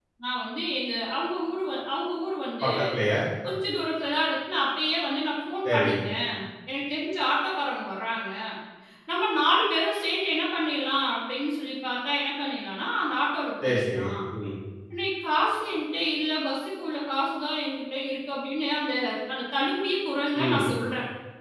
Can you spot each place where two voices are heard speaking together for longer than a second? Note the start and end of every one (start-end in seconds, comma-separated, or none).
none